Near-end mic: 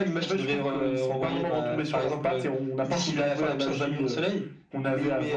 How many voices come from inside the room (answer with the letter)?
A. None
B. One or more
A